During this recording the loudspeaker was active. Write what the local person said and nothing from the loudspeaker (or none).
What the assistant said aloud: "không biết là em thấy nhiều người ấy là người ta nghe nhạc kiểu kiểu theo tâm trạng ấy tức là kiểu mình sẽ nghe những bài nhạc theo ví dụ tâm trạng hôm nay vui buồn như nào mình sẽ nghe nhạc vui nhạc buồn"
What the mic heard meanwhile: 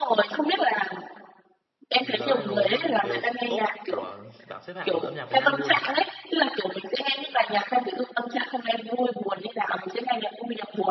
là viral luôn đều top của bảng xếp hạng âm nhạc Việt Nam luôn